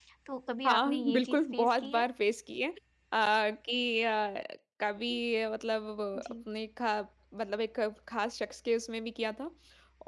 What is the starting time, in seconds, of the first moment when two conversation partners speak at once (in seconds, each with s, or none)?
0.7 s